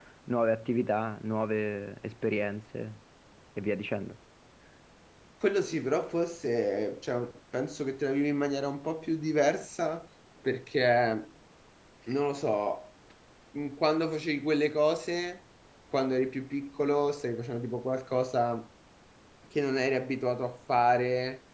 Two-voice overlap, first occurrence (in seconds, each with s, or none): none